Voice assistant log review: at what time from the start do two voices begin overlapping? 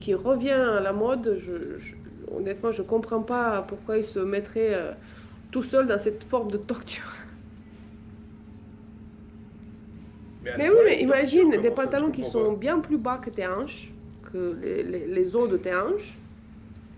11 s

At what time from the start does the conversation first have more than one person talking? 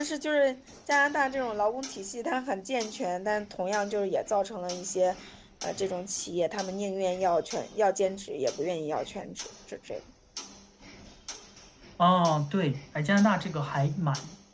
none

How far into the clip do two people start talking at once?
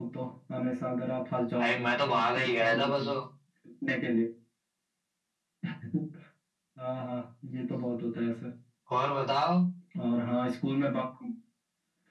2 s

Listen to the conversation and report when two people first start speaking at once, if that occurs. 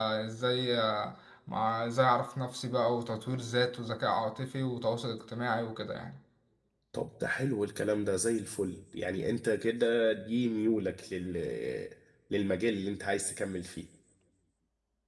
none

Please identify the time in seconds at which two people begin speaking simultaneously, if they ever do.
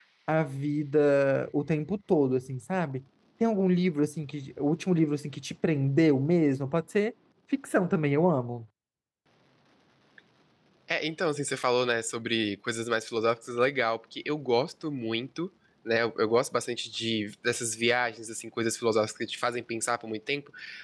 none

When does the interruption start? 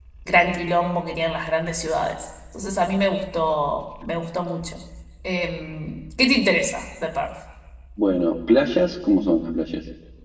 none

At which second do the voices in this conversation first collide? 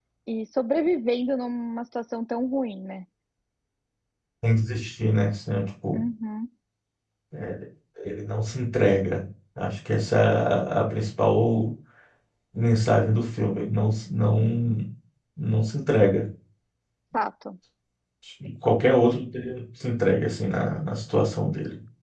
none

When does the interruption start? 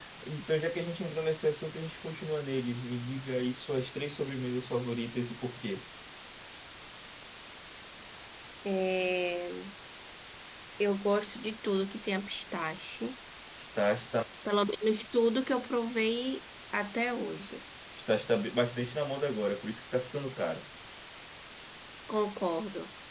none

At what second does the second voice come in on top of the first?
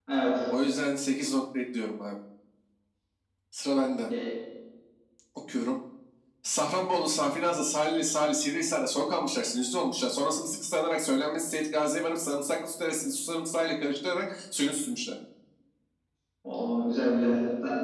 none

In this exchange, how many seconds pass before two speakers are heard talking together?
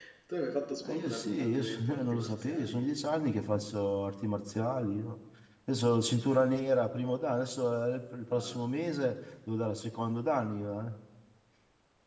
1 s

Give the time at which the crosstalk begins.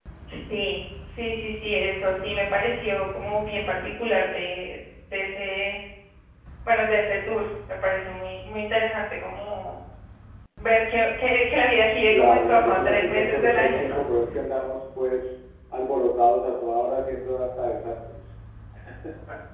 12 s

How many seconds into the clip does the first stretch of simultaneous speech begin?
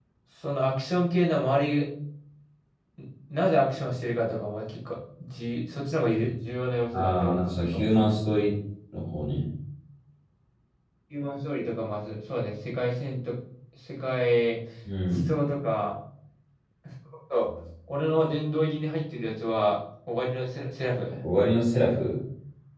7 s

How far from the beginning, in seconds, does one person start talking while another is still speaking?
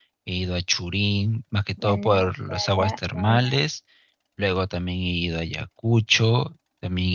2 s

